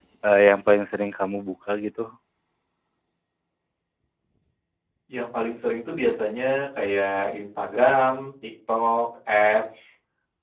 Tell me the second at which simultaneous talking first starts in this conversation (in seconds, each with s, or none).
none